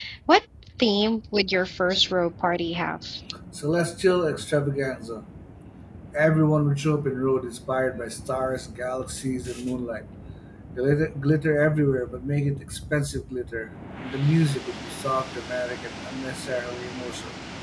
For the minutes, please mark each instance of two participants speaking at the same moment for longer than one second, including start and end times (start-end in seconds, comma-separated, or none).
none